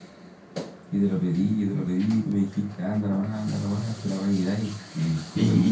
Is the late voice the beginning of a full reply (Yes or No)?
Yes